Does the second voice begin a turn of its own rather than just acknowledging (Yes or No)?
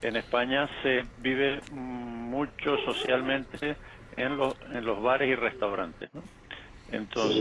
No